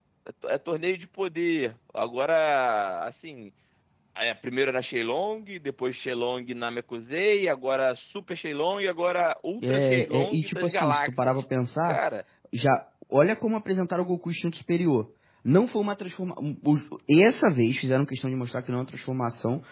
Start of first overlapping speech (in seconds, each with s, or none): 9.6 s